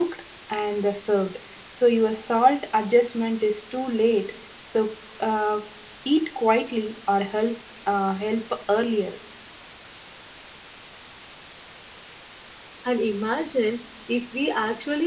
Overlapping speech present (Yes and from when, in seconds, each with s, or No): No